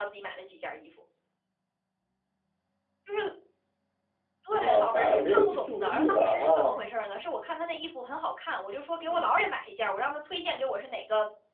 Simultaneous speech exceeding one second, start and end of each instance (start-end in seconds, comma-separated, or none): 4.5-6.7